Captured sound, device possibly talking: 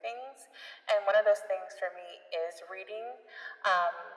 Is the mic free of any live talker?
Yes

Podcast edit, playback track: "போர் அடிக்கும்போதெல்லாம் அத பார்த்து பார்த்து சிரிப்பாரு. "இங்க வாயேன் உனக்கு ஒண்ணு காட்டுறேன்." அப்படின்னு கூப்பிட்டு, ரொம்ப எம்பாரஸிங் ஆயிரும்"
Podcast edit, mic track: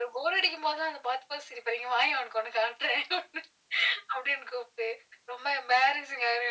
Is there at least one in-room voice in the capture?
No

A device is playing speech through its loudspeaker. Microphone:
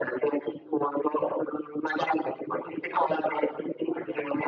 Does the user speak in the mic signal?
No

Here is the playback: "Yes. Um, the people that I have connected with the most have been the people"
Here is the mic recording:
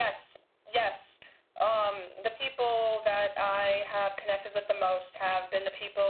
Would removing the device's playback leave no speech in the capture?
Yes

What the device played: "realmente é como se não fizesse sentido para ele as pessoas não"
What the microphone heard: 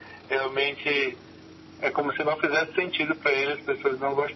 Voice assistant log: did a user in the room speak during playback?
No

